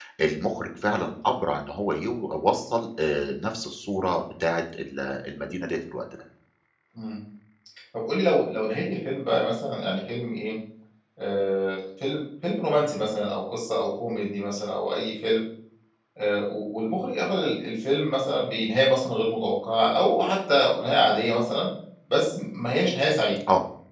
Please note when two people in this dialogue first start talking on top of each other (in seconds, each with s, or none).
none